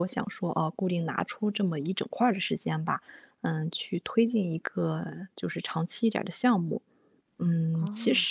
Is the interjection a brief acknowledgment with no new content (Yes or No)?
Yes